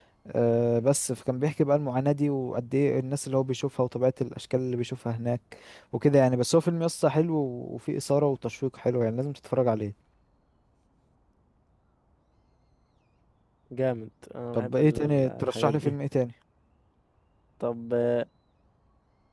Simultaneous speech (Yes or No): Yes